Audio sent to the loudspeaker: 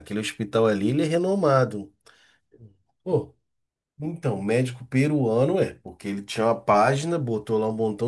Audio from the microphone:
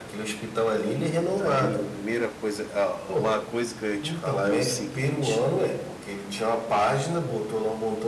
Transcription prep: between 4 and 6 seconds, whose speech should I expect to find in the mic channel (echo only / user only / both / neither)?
both